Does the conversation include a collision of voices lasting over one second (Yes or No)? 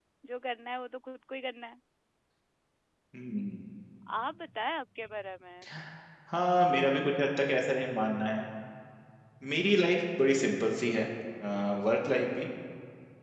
No